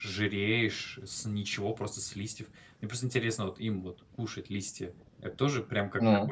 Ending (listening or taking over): listening